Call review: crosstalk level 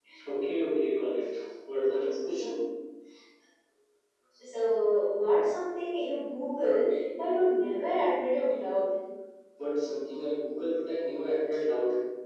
none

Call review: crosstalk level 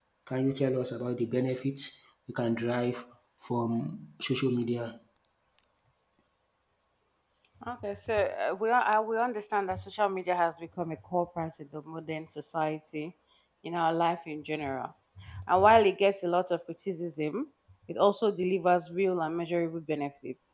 none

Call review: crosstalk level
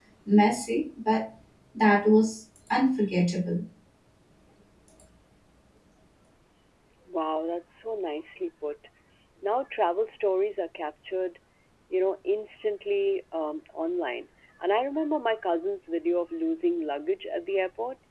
none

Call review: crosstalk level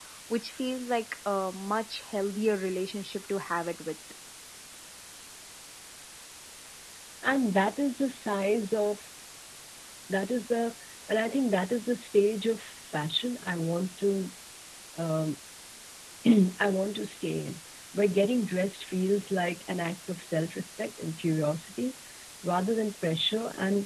none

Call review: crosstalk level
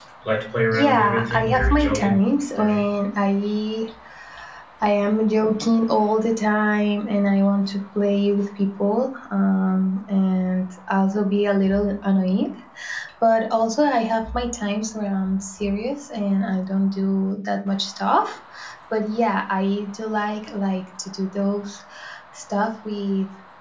present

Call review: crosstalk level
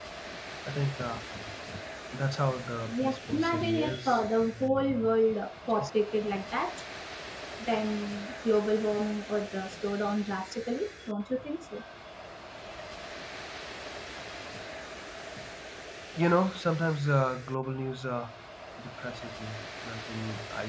present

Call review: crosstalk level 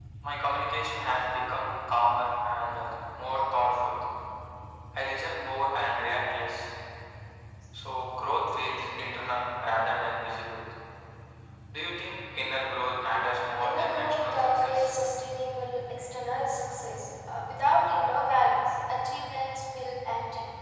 present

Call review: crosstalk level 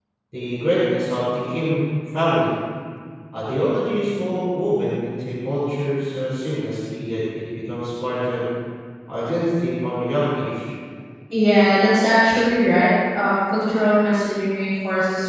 none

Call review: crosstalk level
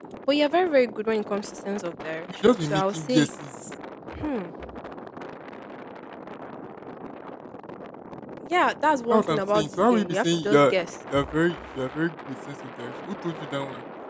present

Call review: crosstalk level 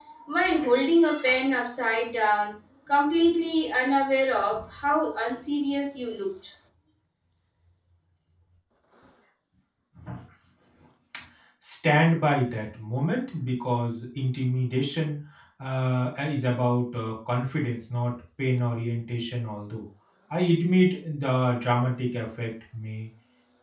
none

